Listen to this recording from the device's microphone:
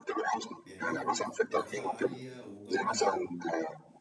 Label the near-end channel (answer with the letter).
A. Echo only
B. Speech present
B